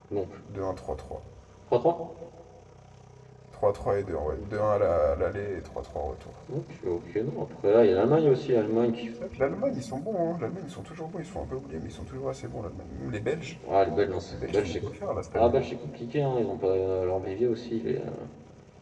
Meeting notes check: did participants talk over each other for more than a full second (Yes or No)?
No